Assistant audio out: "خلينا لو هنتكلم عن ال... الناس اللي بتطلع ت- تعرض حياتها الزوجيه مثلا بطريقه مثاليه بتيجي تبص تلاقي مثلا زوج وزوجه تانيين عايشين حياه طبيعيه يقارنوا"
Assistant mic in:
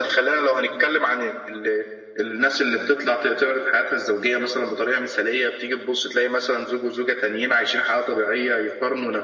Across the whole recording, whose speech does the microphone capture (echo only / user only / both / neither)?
echo only